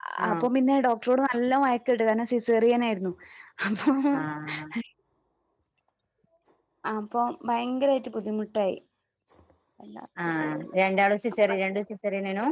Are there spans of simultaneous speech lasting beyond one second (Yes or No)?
No